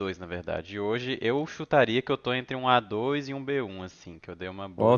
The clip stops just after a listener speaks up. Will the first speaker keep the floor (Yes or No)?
No